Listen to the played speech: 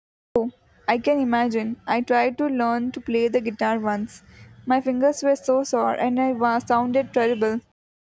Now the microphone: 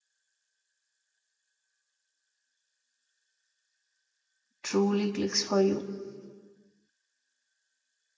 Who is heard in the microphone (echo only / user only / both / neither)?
user only